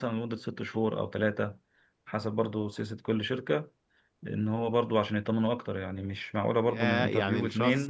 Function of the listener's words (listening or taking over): taking over